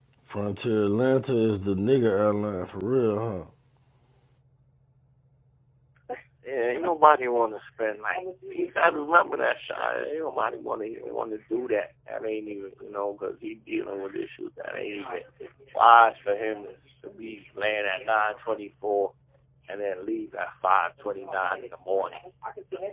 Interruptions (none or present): none